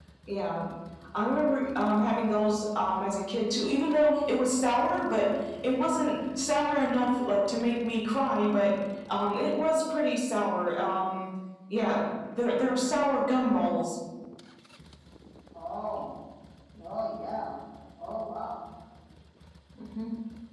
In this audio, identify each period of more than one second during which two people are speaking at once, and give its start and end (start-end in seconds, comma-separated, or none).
none